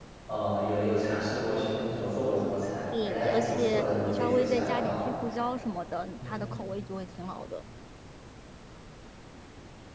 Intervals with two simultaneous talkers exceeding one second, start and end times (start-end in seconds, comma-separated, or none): 3.0-4.9